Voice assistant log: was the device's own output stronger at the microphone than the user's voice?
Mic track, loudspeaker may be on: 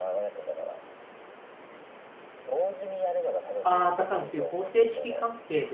No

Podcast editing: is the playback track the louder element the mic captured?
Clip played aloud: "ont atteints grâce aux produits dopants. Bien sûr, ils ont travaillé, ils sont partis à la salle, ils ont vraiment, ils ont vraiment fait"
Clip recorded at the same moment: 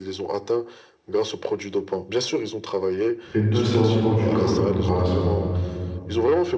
No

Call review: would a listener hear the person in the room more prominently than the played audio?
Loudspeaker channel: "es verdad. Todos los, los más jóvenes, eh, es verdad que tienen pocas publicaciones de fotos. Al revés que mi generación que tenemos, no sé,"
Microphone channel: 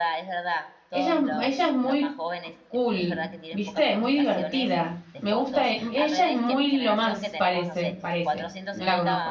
Yes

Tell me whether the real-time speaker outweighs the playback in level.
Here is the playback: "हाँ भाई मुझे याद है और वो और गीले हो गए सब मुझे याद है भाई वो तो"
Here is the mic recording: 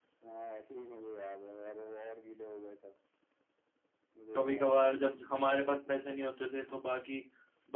Yes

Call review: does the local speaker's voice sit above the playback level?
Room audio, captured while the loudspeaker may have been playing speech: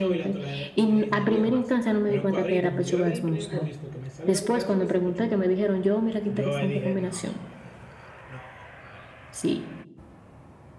No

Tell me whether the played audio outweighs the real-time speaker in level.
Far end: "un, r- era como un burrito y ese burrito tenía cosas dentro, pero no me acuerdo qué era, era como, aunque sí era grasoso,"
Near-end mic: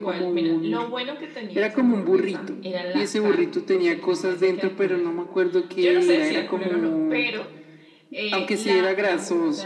Yes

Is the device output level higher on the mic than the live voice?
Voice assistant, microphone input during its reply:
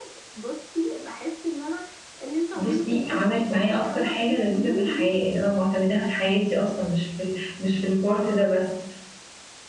No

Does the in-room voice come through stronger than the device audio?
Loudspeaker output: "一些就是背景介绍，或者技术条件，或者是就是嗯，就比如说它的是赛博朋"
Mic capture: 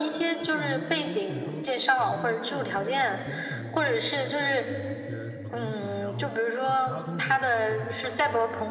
No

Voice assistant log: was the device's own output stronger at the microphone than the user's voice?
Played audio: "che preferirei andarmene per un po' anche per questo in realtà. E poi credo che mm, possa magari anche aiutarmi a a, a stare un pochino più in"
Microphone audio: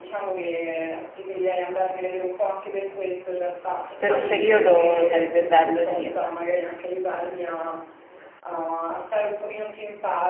No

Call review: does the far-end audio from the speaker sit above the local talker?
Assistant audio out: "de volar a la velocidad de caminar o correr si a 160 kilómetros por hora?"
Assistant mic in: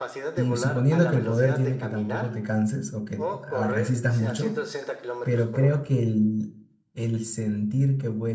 No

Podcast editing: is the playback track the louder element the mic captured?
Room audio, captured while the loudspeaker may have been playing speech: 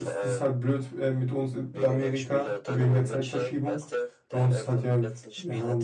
No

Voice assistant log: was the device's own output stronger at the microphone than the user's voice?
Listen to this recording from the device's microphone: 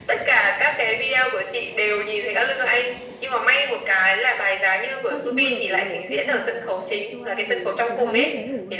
Yes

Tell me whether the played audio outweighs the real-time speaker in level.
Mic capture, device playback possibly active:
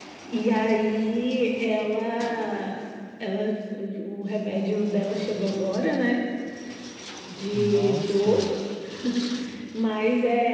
Yes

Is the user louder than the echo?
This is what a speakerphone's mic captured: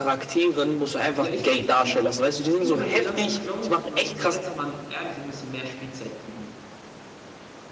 No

